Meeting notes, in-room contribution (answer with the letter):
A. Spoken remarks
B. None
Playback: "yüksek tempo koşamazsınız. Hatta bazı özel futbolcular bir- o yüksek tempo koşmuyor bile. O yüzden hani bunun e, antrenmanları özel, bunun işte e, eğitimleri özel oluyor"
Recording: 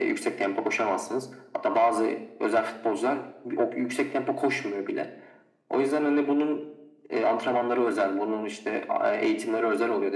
B